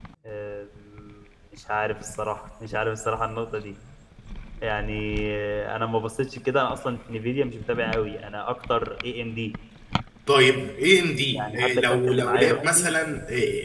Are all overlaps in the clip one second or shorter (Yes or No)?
No